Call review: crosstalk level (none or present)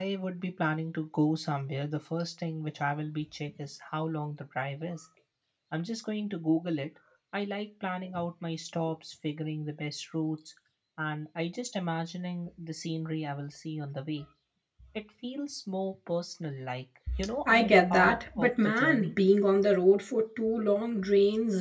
present